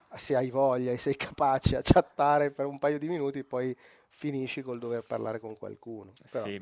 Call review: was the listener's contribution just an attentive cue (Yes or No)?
No